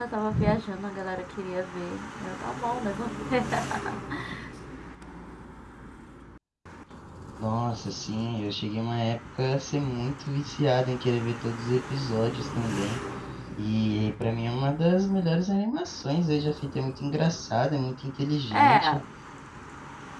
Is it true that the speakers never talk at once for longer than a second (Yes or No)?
Yes